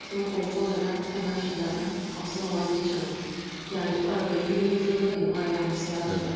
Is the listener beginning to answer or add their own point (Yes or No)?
No